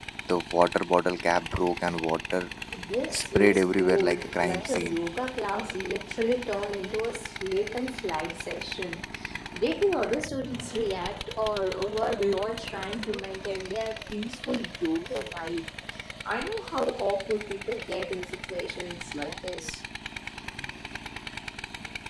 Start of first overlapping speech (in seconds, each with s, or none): 3.1 s